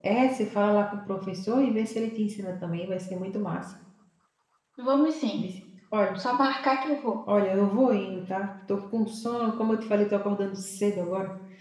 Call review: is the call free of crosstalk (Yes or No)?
Yes